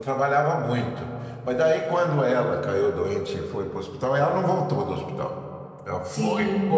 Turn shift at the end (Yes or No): No